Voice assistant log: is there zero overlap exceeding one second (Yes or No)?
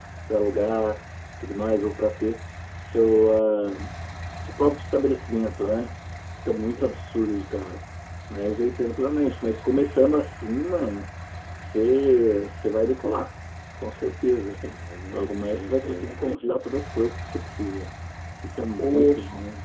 No